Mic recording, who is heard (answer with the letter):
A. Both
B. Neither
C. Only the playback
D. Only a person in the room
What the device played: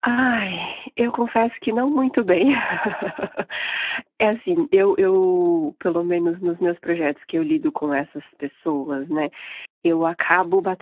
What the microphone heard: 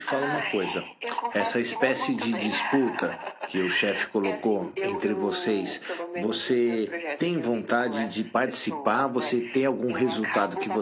A